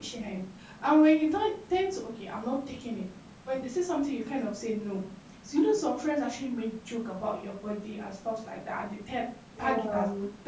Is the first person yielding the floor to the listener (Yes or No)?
No